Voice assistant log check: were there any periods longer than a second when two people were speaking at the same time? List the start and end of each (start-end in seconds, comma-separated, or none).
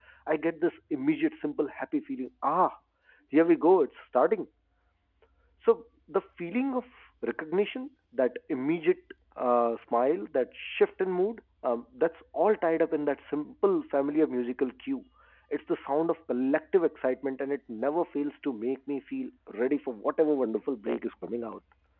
none